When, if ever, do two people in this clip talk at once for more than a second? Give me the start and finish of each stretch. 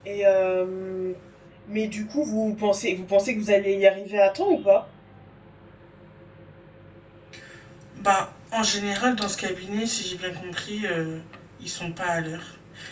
none

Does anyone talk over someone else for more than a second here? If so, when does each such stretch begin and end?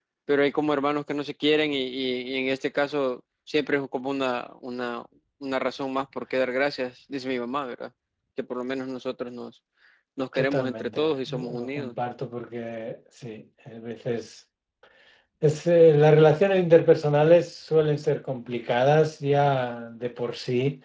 10.3-11.9

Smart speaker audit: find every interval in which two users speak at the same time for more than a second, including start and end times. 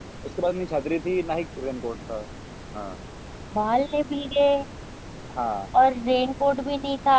none

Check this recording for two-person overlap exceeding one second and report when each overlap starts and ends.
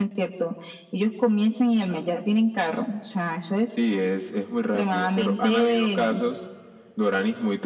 4.7-6.1

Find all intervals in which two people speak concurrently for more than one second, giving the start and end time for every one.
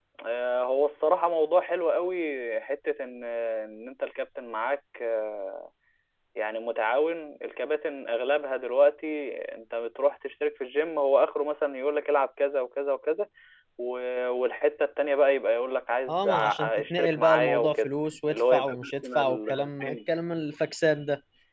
16.1-17.9, 18.3-20.0

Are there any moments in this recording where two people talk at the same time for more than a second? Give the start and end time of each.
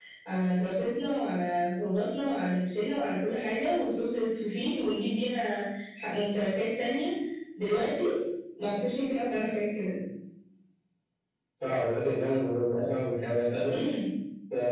none

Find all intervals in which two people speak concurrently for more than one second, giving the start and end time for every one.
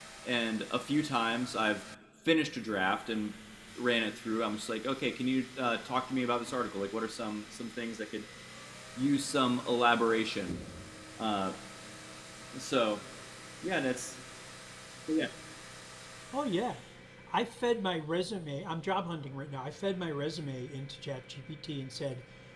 none

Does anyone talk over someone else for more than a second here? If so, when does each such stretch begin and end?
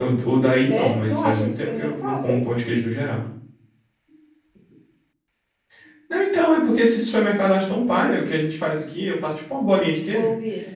0.7-2.4

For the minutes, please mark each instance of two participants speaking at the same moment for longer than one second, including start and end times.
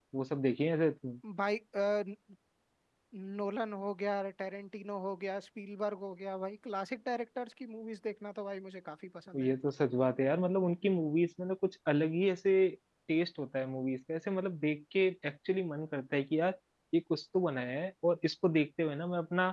none

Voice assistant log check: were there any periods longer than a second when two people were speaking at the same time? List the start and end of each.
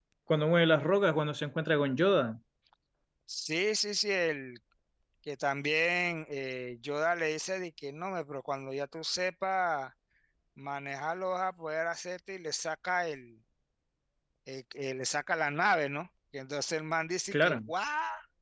none

